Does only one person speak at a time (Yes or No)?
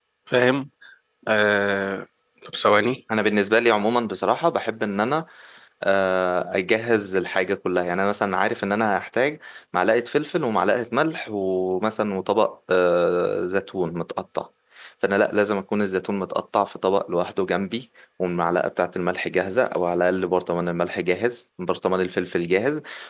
Yes